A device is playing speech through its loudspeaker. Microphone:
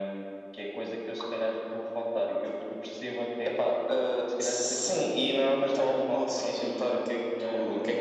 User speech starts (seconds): none

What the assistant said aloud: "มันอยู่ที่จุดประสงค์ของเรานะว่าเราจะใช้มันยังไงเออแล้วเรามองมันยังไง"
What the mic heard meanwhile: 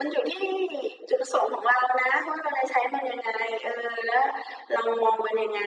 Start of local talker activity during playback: none

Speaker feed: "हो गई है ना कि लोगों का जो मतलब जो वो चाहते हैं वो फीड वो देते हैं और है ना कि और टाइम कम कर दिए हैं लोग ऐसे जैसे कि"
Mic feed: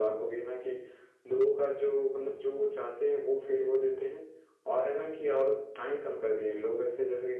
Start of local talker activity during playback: none

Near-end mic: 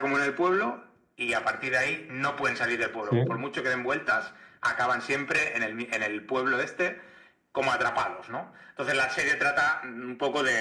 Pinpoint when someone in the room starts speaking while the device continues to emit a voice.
3 s

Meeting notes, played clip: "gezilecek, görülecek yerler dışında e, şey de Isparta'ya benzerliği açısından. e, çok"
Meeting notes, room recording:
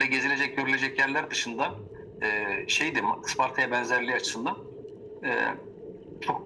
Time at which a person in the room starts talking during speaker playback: none

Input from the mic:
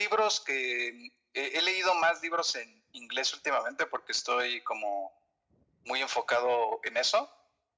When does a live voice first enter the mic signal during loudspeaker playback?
none

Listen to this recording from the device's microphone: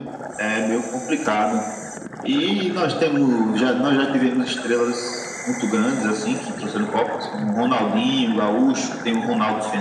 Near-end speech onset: none

